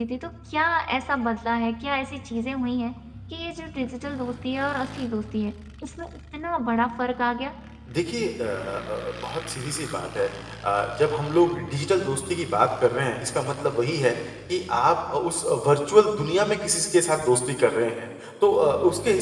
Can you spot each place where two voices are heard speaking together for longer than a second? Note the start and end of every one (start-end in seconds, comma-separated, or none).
none